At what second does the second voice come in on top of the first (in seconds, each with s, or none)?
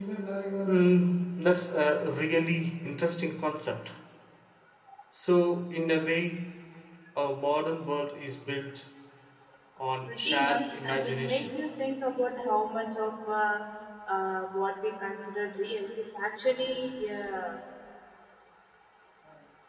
10.0 s